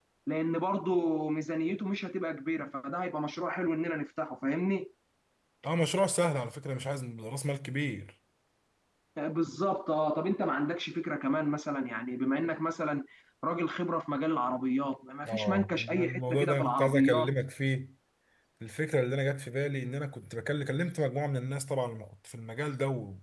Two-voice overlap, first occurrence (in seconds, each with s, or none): 15.2 s